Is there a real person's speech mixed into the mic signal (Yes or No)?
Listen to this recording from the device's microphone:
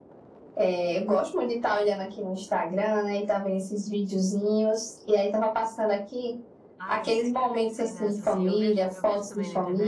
Yes